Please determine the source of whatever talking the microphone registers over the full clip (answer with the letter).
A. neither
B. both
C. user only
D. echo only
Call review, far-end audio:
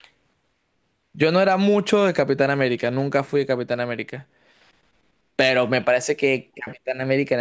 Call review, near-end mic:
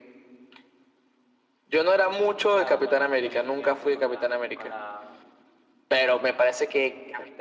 B